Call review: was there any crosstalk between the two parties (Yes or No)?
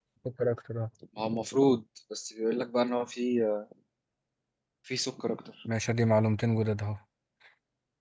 No